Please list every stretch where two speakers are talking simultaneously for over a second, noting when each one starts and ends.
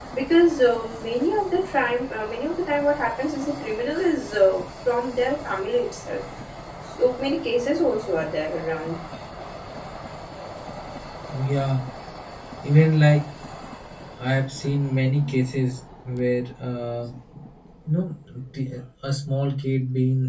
none

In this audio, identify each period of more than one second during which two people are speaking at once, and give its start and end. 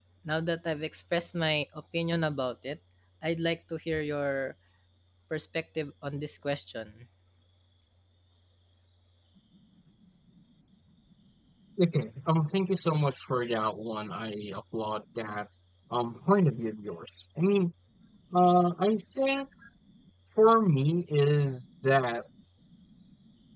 none

